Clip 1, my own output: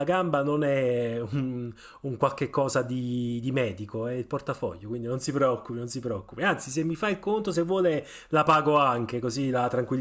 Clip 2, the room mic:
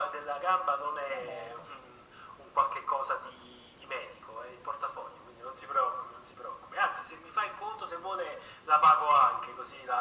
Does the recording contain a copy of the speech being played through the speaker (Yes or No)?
Yes